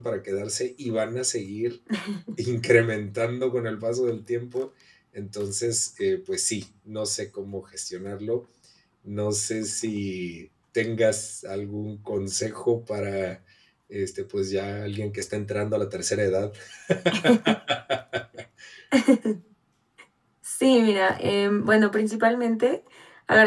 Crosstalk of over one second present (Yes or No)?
No